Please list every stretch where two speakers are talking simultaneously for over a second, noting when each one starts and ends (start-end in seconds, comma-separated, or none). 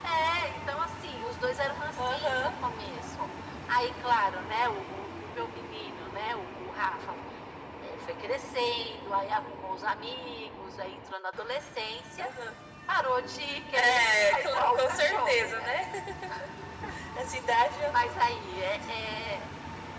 13.7-15.7